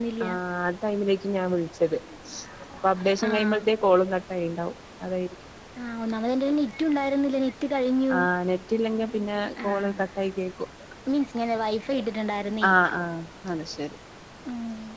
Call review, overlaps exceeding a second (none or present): none